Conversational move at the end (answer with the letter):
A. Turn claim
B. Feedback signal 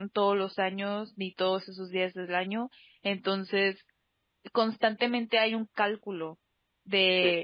B